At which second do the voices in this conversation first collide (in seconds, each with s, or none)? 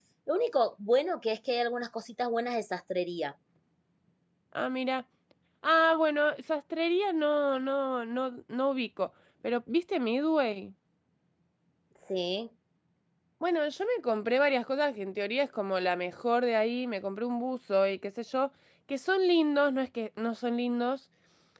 none